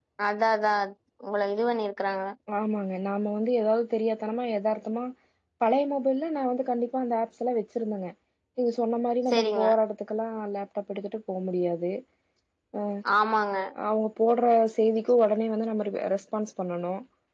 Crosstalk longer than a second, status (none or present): none